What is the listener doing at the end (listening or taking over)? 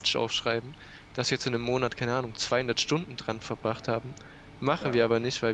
listening